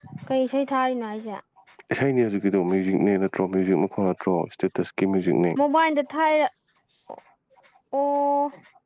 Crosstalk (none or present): none